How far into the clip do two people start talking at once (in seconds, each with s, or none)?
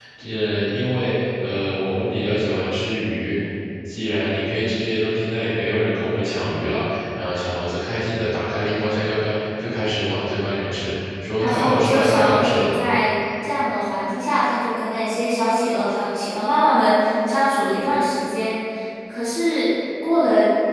11.4 s